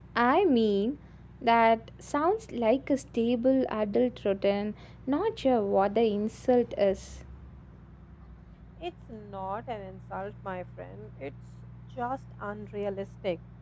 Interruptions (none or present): none